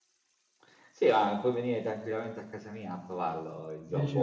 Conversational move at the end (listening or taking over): listening